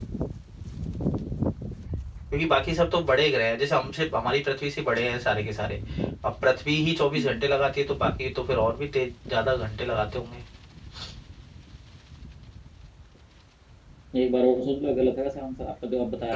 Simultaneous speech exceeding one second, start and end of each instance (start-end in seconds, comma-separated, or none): none